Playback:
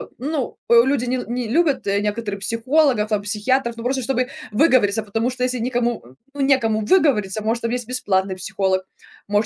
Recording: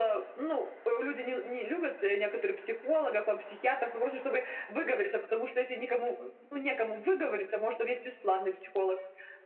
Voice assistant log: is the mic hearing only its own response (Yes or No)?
Yes